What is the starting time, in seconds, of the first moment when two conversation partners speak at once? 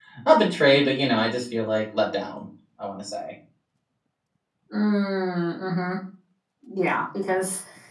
none

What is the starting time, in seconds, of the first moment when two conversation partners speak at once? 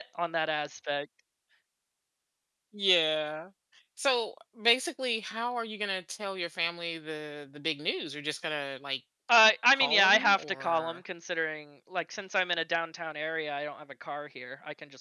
10 s

